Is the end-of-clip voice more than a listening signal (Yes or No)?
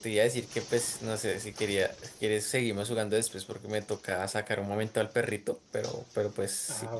Yes